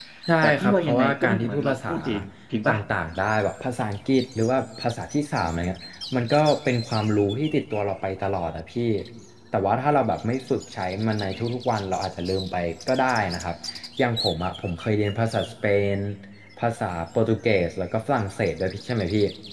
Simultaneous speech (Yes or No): Yes